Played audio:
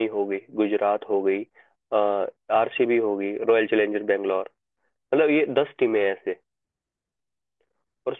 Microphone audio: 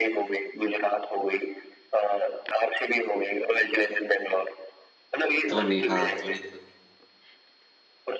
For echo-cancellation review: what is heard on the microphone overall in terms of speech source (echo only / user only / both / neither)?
both